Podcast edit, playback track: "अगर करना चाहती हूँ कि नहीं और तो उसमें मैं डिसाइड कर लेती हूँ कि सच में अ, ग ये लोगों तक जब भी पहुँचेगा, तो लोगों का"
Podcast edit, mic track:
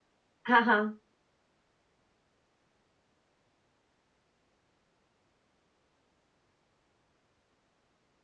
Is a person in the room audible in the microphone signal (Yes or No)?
Yes